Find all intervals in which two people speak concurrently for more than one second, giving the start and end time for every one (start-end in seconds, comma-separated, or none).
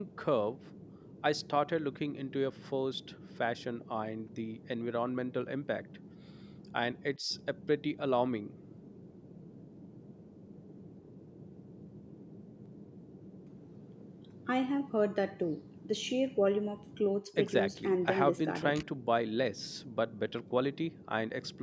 17.4-18.8